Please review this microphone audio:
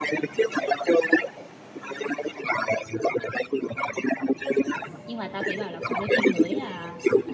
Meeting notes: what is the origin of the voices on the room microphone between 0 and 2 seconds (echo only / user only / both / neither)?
echo only